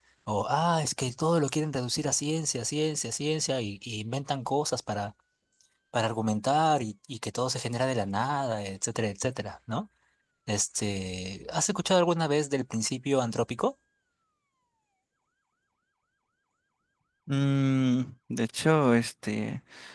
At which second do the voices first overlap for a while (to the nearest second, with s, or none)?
none